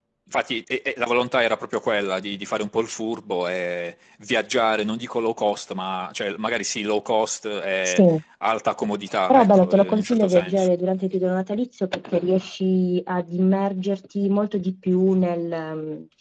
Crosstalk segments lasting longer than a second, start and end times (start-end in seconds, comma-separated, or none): 9.3-10.7